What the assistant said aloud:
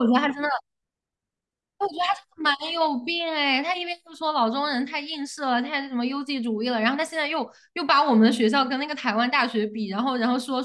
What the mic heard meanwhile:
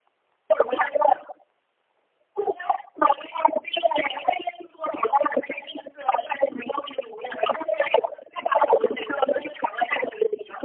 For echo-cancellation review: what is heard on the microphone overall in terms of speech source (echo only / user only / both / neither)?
echo only